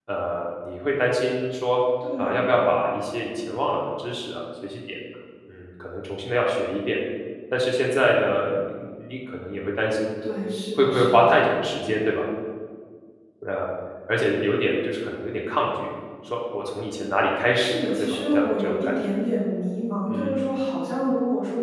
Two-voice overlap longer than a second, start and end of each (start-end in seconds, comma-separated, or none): 17.5-19.2